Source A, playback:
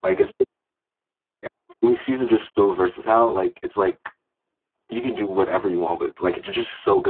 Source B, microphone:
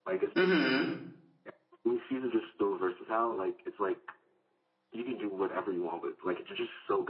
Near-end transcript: hmm

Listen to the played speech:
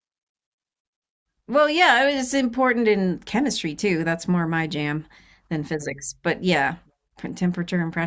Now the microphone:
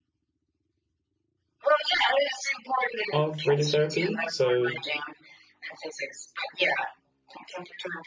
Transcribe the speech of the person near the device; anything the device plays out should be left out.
of radiotherapy. So

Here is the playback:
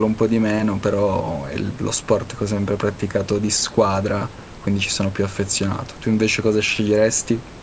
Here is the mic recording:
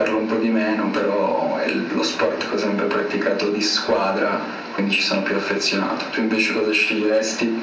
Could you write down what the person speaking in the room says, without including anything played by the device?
none

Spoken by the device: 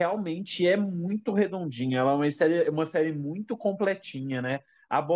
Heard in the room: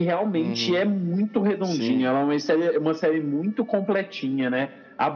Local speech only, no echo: Uhum, sim.

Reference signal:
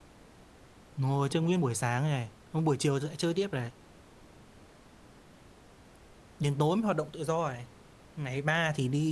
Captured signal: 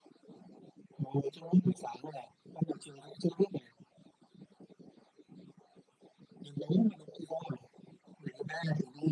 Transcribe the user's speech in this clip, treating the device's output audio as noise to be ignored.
none

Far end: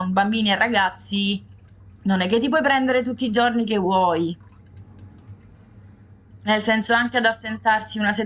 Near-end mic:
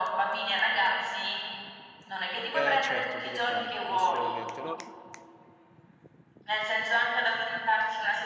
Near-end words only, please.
Eh, certo, come fai? Assolutamente. No,

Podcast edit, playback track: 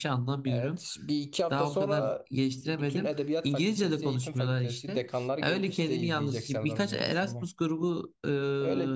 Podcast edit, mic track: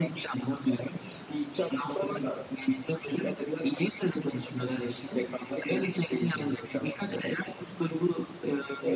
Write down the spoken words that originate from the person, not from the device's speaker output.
none

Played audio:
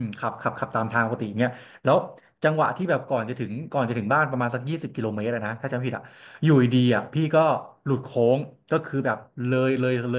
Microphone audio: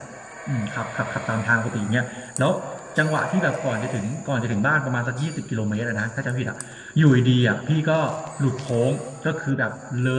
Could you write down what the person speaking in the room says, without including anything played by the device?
none

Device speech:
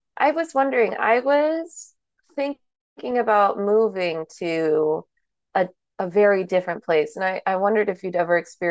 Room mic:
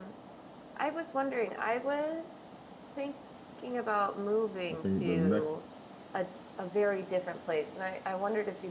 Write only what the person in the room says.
I think the next

